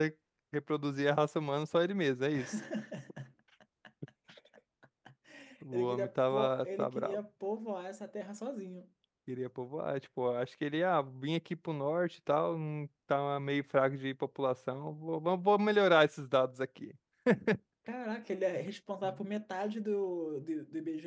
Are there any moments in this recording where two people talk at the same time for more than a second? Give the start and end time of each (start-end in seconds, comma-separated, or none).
5.7-7.2